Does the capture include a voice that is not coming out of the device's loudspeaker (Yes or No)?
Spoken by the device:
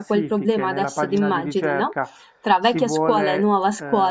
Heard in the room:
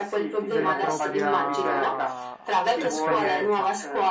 Yes